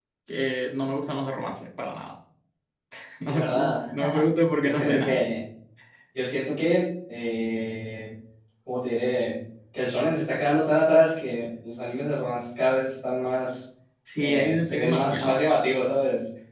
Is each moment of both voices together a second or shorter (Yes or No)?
No